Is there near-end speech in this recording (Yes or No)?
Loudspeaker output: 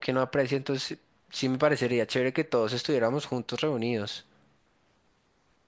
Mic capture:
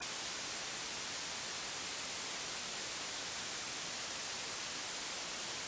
No